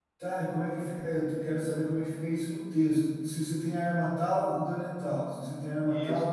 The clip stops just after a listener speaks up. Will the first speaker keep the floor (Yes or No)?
No